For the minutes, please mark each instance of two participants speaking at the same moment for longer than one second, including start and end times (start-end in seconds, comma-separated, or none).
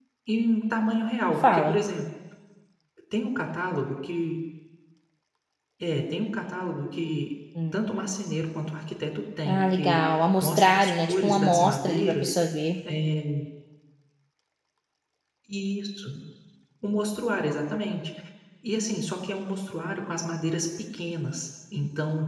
9.4-12.4